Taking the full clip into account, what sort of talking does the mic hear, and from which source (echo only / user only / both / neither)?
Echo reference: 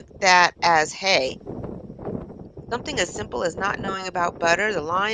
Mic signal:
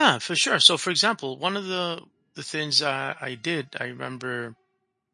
user only